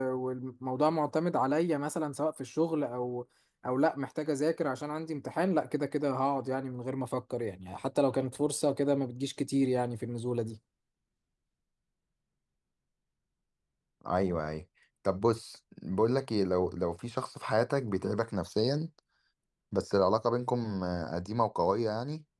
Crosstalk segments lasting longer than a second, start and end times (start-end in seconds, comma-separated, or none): none